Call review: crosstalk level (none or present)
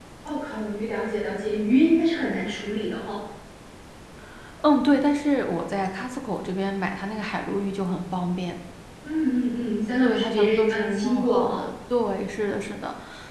present